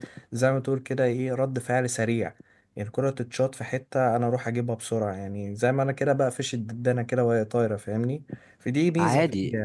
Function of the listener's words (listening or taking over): taking over